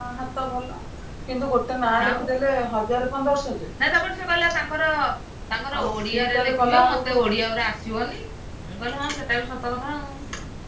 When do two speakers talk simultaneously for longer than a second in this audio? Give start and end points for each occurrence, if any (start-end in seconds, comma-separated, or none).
5.8-7.2